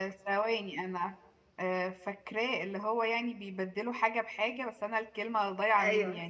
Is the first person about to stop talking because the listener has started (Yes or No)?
Yes